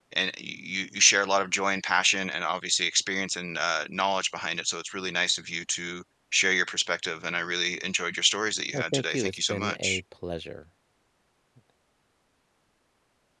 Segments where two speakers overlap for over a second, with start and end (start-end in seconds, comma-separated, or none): 8.7-10.0